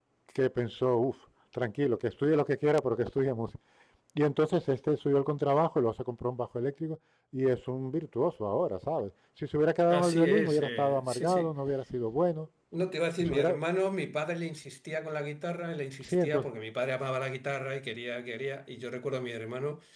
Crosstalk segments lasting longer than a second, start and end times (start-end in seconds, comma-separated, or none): 9.9-11.5